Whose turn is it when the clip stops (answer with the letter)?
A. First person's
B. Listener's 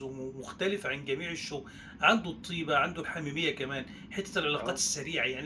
A